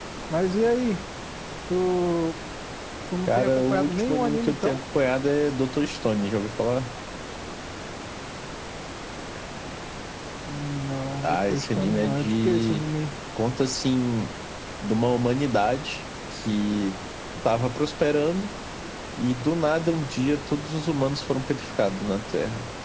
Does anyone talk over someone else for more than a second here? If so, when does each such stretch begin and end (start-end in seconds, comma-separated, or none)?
3.3-4.8, 11.2-12.8